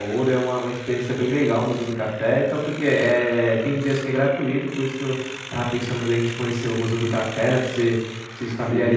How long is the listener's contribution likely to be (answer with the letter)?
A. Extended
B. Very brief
B